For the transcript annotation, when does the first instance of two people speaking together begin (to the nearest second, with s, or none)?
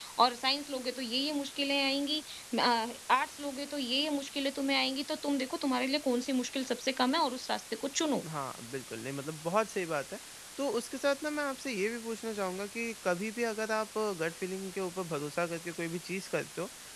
none